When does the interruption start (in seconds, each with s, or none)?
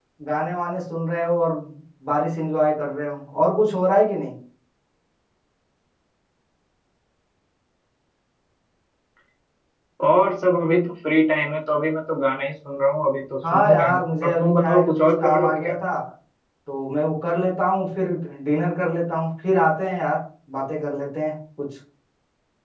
13.4 s